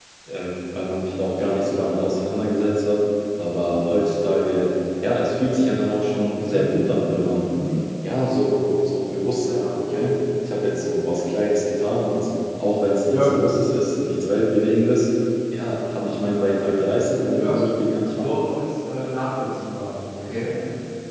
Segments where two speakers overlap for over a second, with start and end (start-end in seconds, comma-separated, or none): none